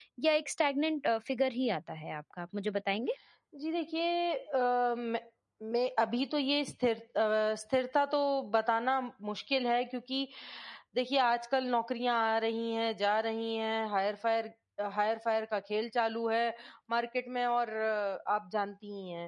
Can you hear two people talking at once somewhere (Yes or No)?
No